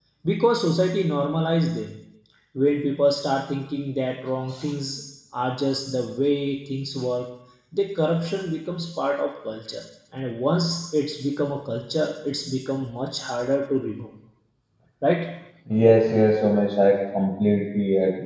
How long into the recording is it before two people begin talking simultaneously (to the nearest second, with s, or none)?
none